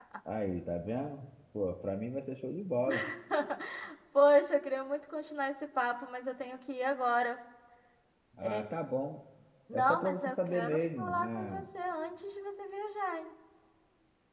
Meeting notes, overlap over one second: present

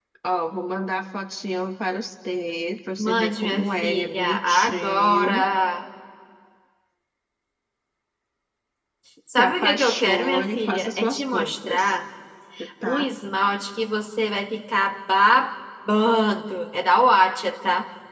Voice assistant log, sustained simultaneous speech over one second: present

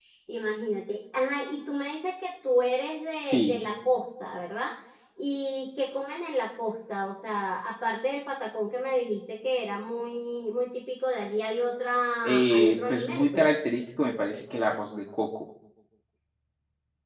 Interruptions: present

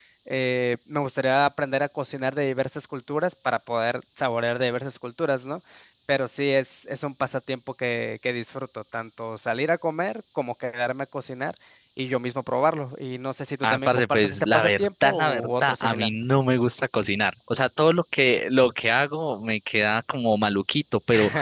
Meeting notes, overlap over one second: present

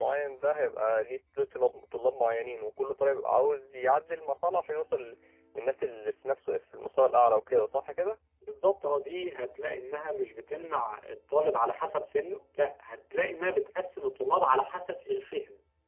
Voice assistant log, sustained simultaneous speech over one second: none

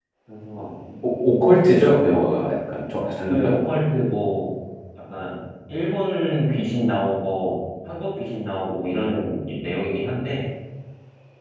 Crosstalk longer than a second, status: none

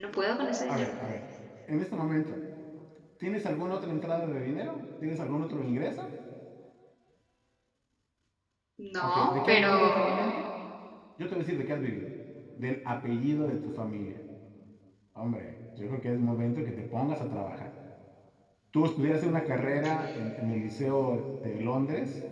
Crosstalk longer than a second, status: present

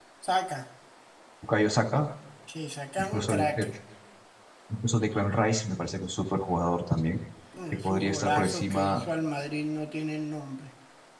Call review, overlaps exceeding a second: present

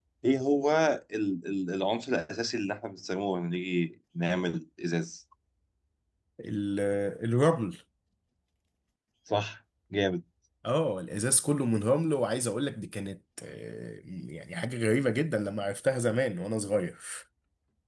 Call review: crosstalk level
none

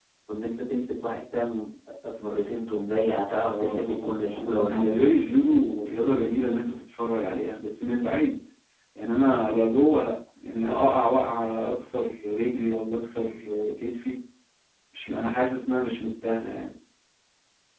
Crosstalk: present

